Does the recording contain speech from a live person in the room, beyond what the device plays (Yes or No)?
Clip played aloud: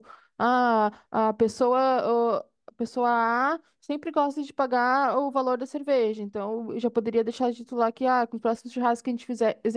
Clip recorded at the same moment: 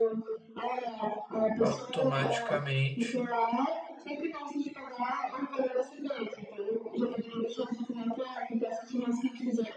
Yes